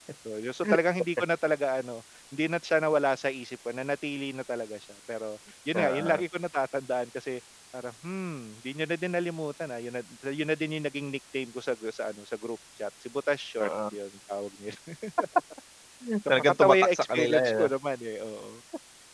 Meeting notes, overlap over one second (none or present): present